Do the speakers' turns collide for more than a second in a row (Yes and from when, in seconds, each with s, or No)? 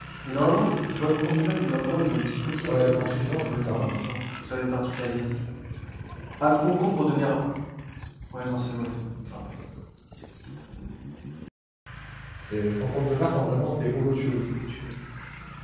Yes, from 2.7 s